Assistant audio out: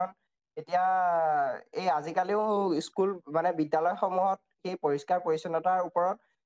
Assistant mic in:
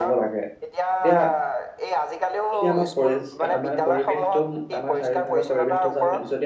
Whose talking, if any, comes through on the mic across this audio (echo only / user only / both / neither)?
both